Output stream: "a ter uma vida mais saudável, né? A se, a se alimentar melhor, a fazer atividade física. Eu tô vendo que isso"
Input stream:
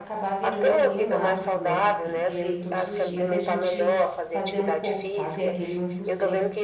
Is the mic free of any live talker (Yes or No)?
No